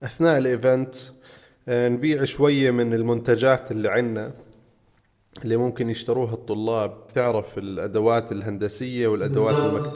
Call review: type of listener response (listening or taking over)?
listening